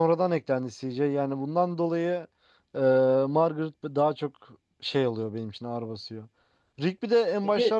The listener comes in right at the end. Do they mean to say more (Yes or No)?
No